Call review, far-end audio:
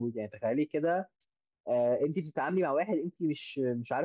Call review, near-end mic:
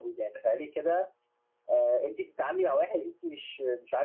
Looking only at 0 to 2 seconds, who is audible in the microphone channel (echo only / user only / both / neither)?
echo only